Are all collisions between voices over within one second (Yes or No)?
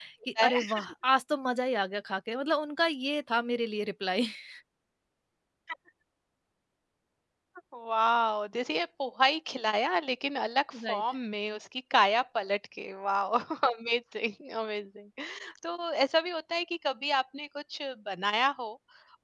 Yes